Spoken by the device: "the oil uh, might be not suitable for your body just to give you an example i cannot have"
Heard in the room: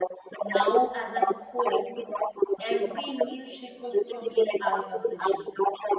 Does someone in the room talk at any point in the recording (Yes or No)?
Yes